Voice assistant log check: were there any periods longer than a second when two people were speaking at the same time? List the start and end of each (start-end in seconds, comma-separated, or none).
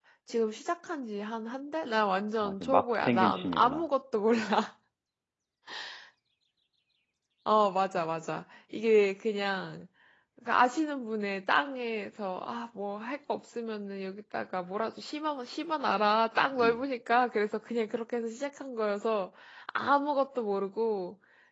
2.4-3.8